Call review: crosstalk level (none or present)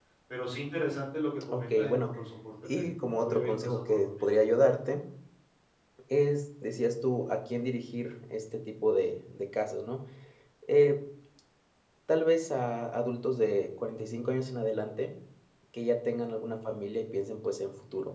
present